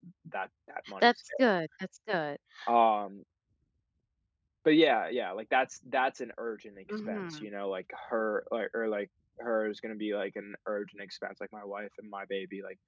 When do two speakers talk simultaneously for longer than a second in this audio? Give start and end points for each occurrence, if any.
none

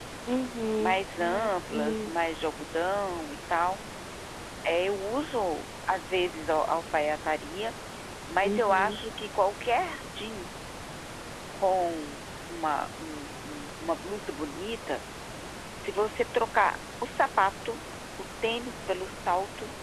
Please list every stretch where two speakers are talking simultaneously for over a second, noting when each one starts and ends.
0.8-2.1

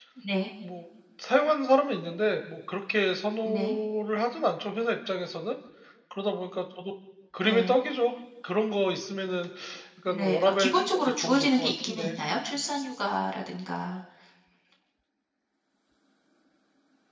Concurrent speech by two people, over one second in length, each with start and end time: 10.1-12.2

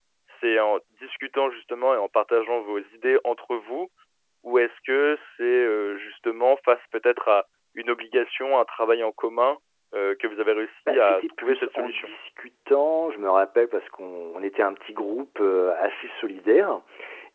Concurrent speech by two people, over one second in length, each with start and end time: 10.9-12.1

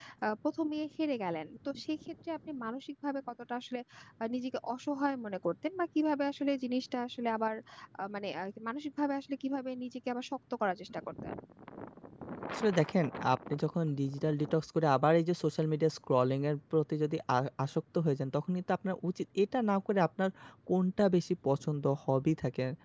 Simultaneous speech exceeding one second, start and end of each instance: none

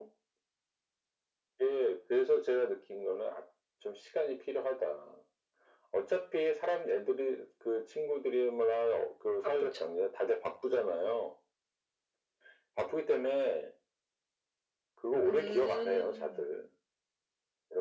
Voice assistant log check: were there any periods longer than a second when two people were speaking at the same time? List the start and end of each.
15.2-16.4

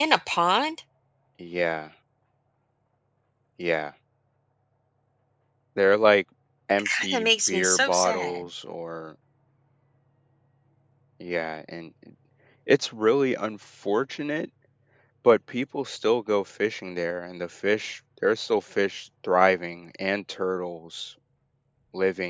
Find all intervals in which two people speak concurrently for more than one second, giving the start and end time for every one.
7.0-8.4

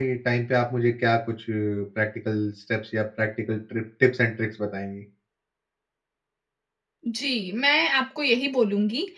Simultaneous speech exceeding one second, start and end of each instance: none

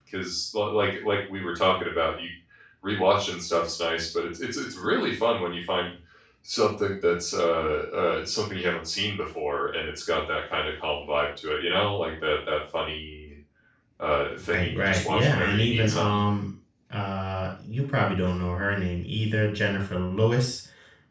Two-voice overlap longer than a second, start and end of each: 14.5-16.2

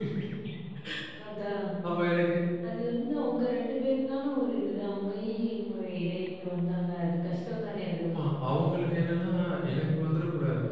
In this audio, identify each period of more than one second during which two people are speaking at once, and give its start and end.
none

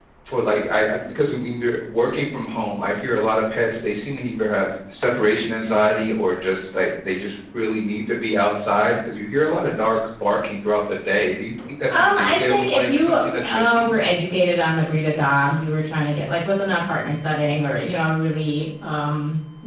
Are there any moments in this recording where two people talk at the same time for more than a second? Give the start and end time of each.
11.9-13.9

